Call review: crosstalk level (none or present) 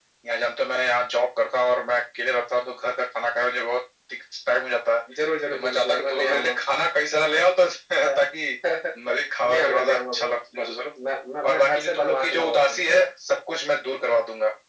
present